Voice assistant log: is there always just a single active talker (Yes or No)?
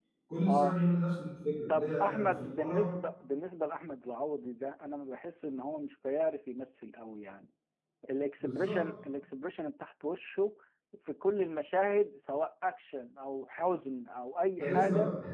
No